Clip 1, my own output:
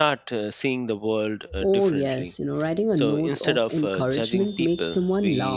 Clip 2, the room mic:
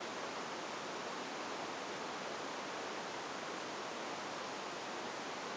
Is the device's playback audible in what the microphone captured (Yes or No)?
No